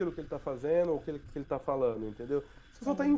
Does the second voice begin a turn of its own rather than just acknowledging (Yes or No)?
No